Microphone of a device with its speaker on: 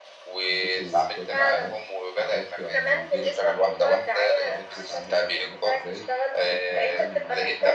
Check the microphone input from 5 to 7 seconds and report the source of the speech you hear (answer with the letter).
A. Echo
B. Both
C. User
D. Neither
B